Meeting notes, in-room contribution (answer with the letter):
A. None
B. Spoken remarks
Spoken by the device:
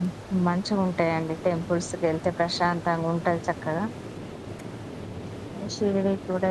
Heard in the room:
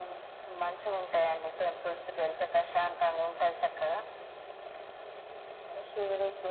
A